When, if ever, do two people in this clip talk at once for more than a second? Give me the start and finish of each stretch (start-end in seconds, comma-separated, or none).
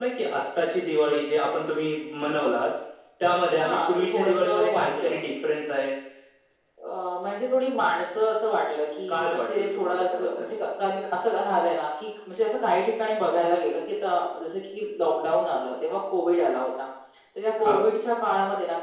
3.6-5.2, 9.1-10.5